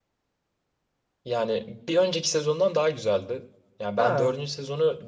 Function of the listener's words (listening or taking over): listening